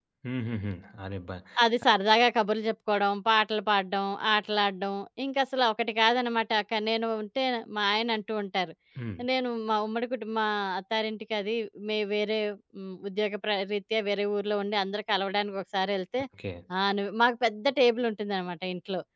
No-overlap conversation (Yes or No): Yes